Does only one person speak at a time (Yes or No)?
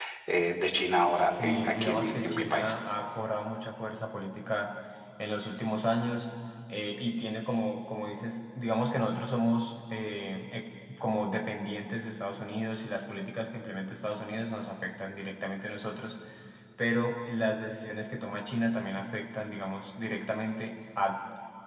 No